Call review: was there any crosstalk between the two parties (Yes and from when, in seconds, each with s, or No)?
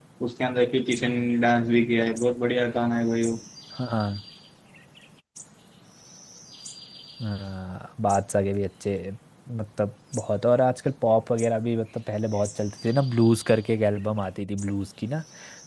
No